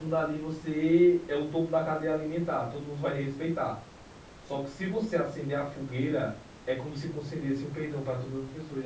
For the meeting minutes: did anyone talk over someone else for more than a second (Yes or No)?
No